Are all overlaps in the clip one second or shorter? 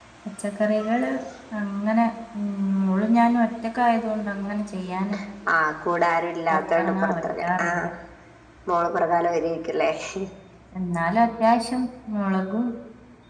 No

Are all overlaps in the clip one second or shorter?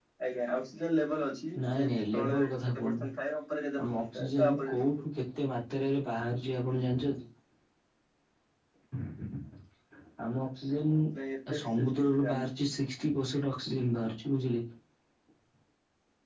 No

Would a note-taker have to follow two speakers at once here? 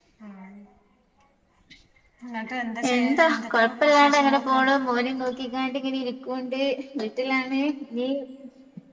Yes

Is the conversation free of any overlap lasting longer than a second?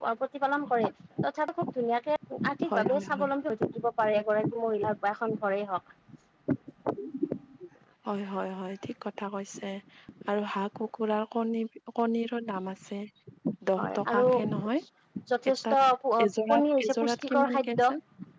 No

